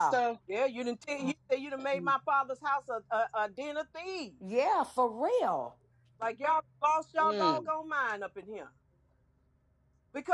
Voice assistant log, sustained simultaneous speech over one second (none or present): none